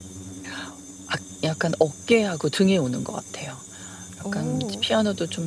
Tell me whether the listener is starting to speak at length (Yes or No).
No